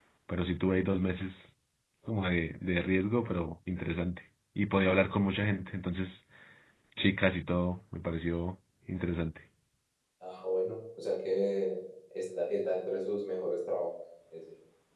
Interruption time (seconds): none

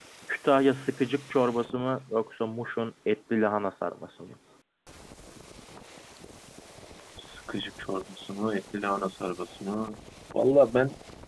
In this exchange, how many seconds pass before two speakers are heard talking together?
none

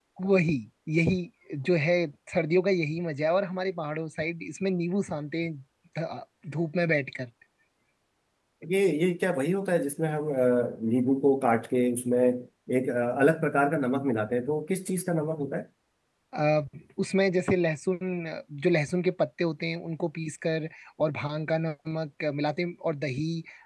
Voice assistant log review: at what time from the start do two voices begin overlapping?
none

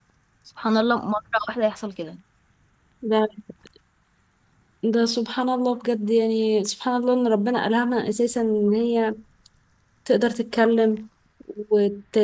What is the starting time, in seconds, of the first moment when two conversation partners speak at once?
none

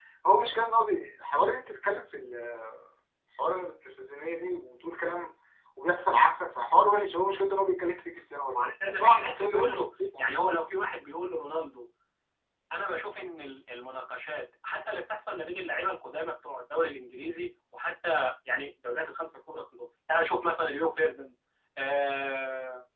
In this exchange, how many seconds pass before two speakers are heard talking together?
8.5 s

